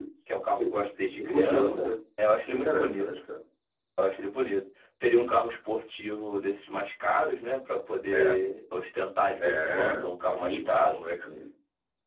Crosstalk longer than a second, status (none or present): present